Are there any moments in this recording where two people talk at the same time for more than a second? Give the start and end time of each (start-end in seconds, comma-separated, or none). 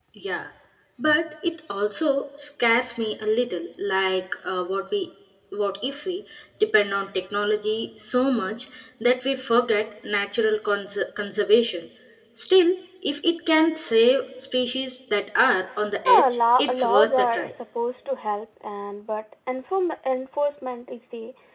16.1-17.5